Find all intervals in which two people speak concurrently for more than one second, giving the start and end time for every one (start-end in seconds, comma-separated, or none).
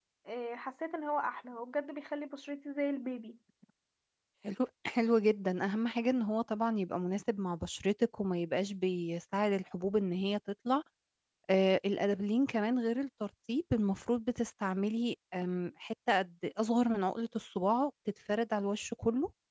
none